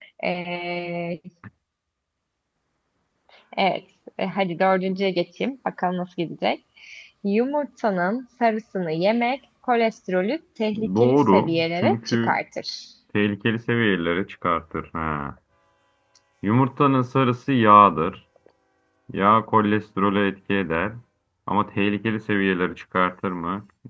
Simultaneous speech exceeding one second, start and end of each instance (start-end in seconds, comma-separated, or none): 11.0-12.4